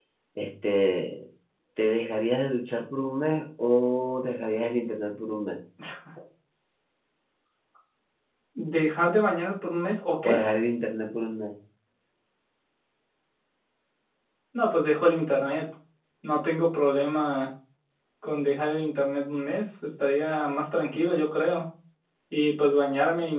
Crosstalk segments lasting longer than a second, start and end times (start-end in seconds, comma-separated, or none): none